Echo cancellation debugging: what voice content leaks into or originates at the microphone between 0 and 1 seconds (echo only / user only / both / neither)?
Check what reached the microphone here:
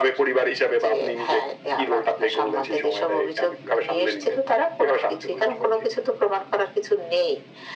echo only